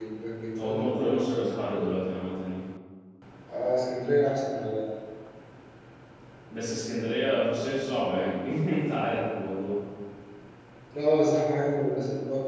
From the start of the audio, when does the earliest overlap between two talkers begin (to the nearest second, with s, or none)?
1 s